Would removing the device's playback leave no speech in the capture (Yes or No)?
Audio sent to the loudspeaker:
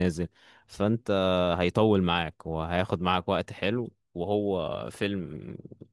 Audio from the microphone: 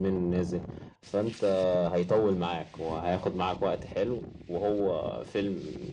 Yes